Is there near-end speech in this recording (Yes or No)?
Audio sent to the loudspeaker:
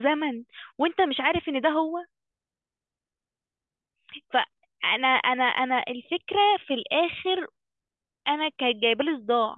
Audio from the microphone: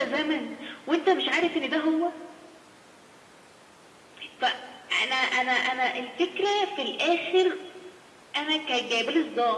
No